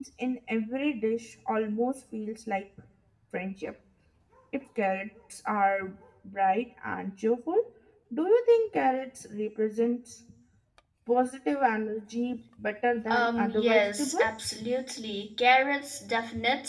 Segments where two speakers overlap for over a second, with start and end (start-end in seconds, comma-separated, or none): 13.1-14.6